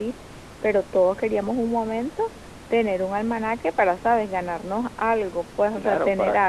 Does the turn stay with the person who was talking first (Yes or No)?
No